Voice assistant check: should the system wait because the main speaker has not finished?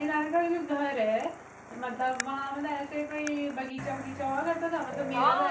No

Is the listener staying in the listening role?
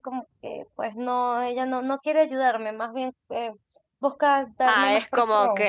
No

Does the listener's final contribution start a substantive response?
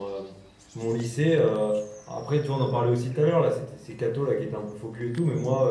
No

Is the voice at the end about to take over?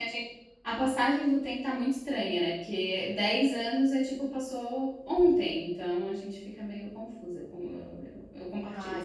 Yes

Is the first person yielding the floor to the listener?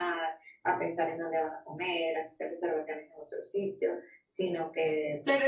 Yes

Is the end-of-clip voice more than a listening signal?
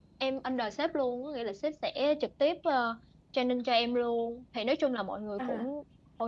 No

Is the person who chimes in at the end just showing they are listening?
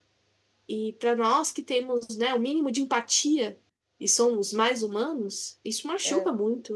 Yes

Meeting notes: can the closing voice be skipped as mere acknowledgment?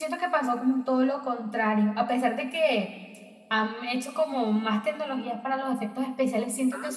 Yes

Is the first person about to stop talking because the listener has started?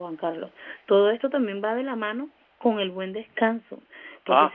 No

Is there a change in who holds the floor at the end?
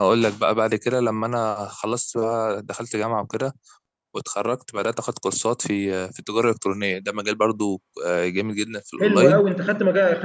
Yes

